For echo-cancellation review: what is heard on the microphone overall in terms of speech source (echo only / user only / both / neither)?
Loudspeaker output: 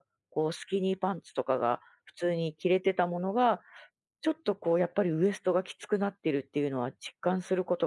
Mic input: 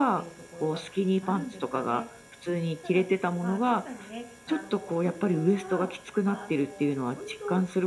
both